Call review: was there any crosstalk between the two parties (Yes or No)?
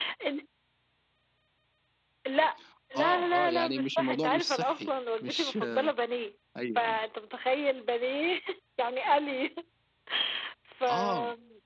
Yes